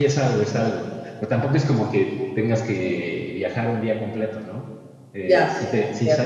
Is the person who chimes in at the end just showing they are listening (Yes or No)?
Yes